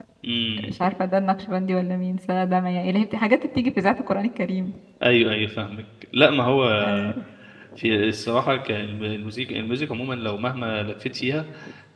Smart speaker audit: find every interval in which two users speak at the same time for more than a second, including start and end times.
none

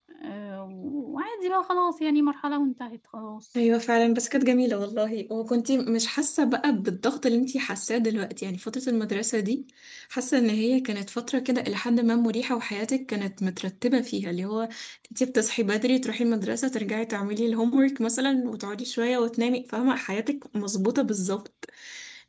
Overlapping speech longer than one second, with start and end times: none

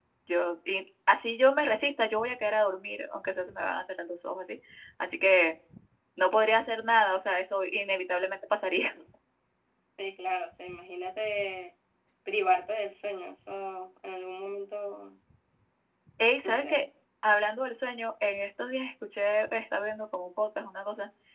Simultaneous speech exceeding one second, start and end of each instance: none

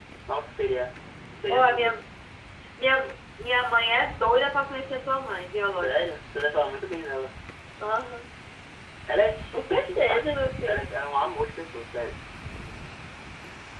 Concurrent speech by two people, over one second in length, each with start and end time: 9.5-10.8

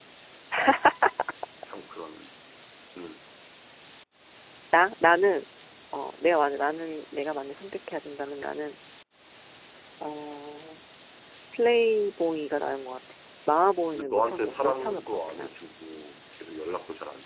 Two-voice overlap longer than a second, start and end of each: 13.9-15.6

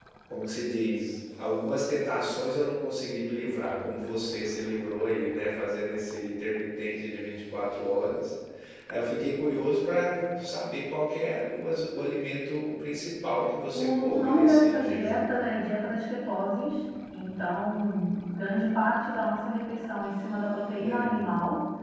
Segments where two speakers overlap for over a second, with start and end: 13.7-15.3

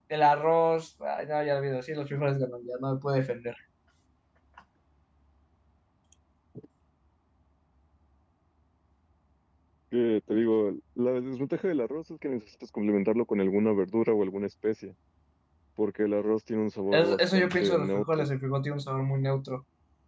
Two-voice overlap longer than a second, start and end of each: 16.9-18.3

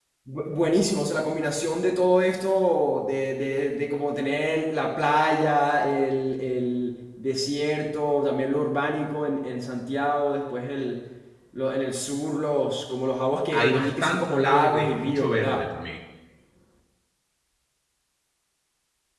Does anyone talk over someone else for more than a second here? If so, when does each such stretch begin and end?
13.5-15.7

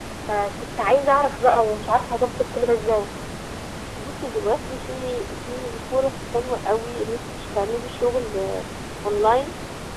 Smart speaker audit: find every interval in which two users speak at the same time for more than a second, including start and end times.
none

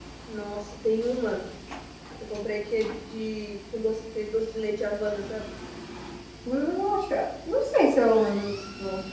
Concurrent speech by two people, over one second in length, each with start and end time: none

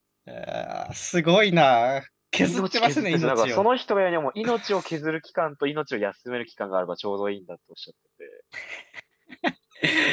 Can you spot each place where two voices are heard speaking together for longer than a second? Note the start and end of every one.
2.4-3.6

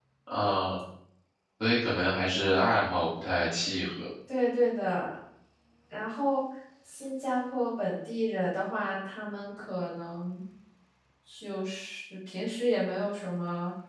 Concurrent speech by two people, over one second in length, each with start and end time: none

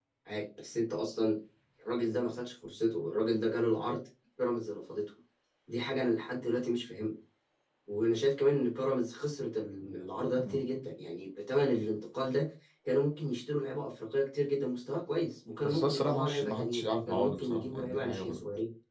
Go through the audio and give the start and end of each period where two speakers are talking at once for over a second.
15.6-18.4

